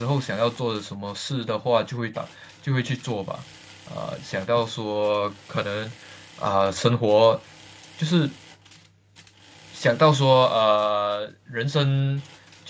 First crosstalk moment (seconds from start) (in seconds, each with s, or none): none